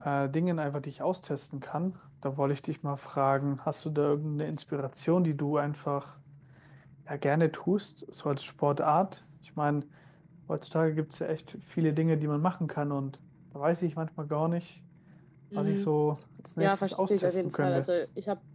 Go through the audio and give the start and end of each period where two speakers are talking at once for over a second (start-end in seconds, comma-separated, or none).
16.6-17.9